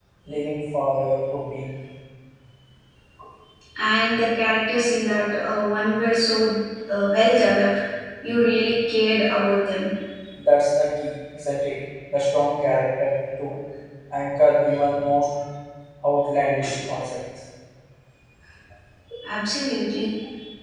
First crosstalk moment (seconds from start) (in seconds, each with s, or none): none